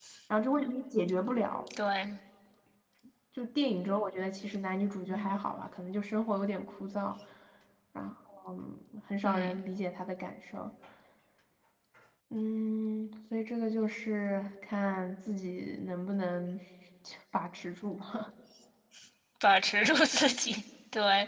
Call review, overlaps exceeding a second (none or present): none